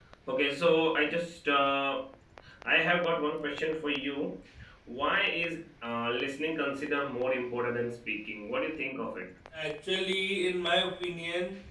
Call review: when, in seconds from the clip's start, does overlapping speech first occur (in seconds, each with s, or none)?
none